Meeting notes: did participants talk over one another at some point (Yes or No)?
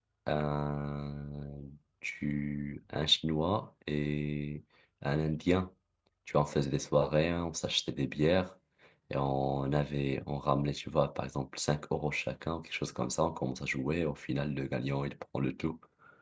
No